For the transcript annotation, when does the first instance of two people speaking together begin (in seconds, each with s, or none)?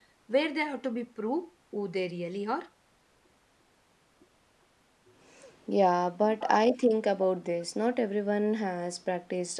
none